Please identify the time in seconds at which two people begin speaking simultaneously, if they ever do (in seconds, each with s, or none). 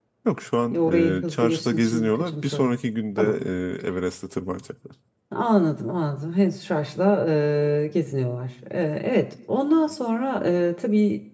0.7 s